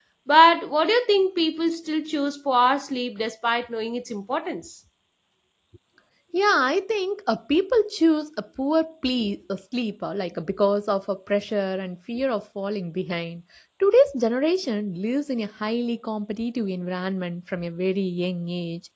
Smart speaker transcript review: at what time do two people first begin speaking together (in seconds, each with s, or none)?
none